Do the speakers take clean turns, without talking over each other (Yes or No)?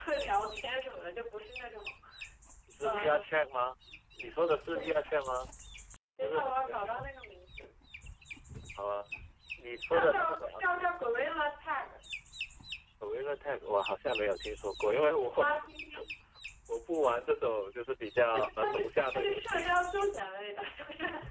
No